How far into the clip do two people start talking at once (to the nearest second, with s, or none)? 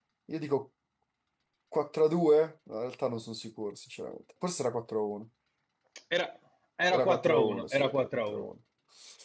7 s